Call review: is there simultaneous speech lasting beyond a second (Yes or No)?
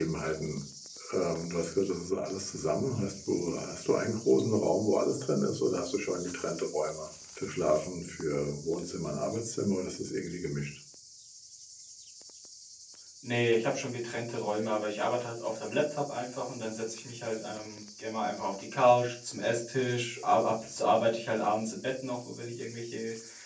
No